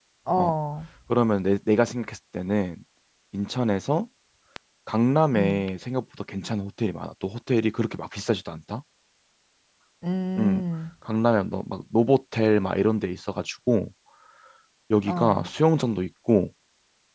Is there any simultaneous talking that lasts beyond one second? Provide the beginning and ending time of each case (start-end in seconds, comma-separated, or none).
none